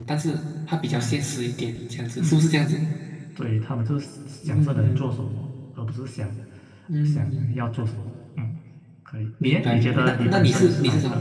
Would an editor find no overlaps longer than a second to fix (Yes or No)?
No